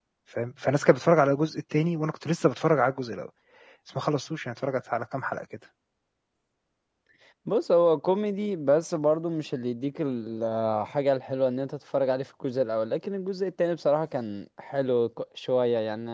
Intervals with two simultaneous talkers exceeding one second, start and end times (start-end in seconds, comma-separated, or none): none